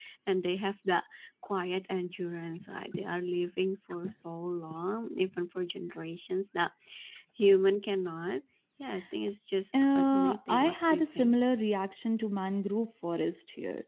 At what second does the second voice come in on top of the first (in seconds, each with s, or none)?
9.9 s